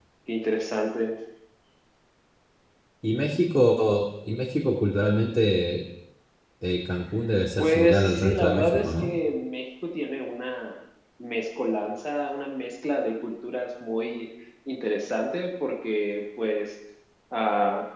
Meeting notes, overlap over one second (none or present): present